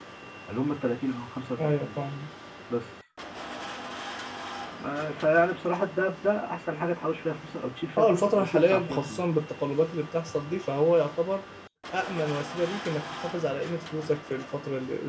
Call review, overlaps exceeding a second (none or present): present